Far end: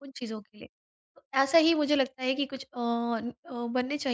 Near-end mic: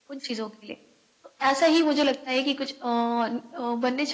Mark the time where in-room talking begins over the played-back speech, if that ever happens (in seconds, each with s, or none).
none